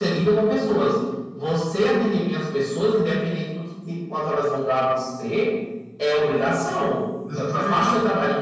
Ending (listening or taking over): listening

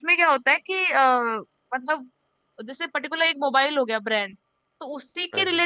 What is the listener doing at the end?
listening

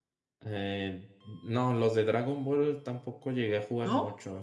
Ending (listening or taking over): taking over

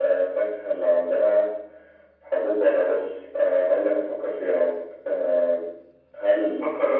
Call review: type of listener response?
listening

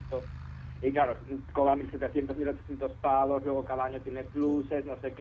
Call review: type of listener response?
listening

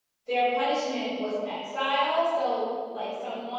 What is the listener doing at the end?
listening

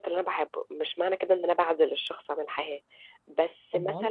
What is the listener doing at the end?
listening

